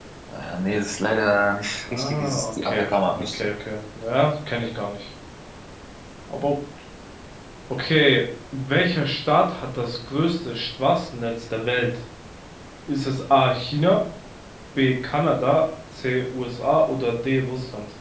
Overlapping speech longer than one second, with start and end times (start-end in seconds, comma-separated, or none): 1.9-3.5